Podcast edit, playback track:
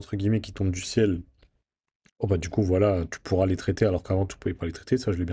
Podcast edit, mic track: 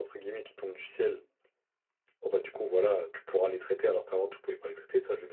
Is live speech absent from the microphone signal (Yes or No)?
Yes